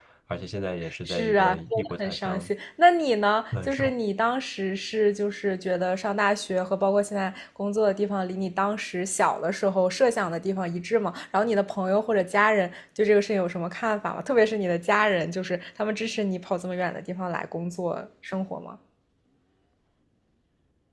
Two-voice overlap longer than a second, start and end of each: 1.1-2.5

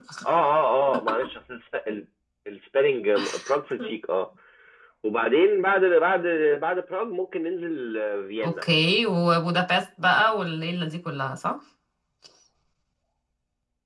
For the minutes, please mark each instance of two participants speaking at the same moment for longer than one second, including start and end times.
none

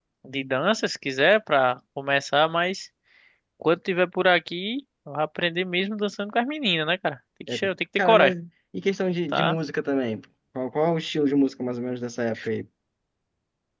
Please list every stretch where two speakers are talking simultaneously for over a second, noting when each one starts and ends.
none

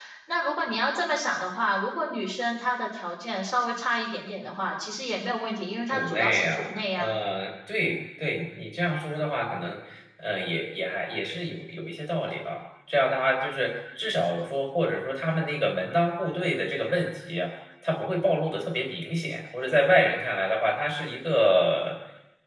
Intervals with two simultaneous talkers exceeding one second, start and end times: 5.9-7.1

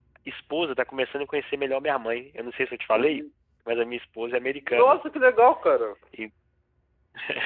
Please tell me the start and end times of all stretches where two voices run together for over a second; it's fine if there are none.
none

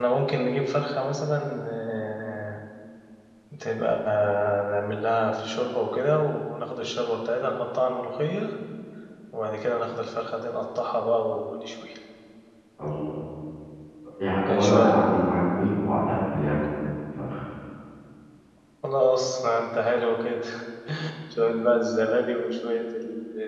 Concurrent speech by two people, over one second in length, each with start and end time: none

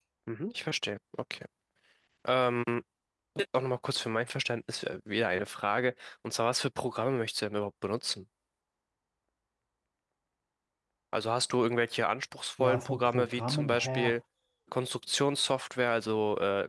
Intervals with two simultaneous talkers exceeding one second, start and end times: 12.6-14.2

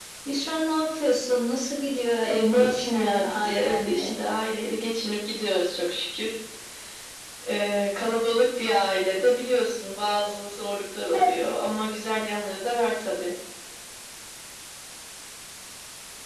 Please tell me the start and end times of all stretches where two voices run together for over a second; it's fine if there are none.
2.3-4.1

